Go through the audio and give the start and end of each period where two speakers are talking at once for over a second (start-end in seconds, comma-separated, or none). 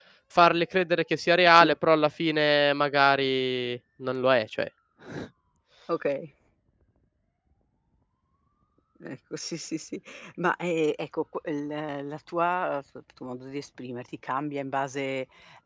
none